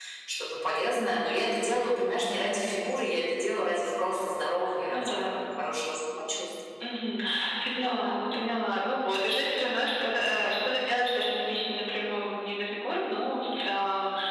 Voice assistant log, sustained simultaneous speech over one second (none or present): none